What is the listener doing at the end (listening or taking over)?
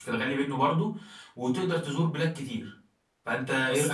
taking over